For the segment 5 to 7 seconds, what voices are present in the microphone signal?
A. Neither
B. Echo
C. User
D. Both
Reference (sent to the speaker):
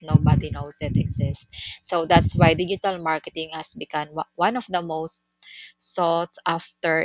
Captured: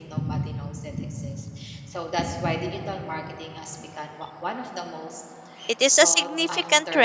D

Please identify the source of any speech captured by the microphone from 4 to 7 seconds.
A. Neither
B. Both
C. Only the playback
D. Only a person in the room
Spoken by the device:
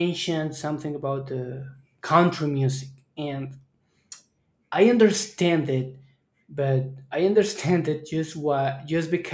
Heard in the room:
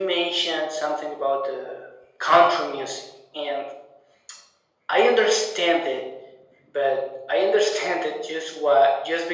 C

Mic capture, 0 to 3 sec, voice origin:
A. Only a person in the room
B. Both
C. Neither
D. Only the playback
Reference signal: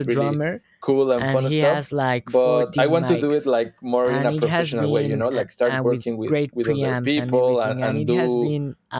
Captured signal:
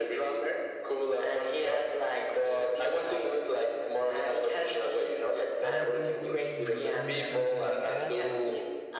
D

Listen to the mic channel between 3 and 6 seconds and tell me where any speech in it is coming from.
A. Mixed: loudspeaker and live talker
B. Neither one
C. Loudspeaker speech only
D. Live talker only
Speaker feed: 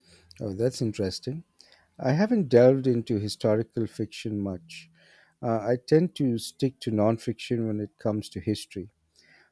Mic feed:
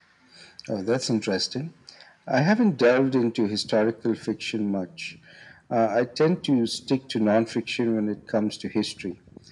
C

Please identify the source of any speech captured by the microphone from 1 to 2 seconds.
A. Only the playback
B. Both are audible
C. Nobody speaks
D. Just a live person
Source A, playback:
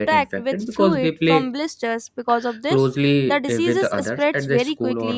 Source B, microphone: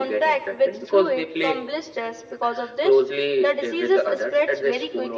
A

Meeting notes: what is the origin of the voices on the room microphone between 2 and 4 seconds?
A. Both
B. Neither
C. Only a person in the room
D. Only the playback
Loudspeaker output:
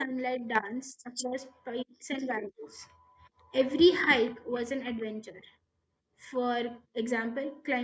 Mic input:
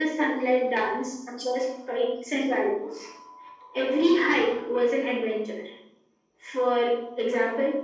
D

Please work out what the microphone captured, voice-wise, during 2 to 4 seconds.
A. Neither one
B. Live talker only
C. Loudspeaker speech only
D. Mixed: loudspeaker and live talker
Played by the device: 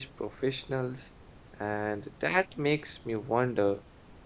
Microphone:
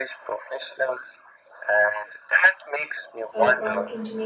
D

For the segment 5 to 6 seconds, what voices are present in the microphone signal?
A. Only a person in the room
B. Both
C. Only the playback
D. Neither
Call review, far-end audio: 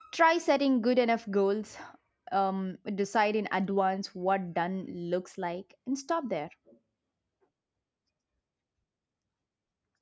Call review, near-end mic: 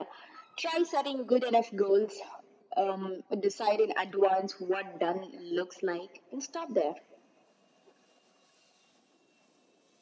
C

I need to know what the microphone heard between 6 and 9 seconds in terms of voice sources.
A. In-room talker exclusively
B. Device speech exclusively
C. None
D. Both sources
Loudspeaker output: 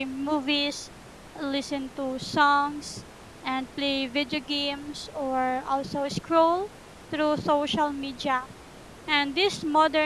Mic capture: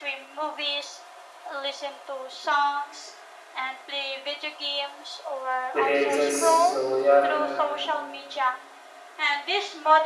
D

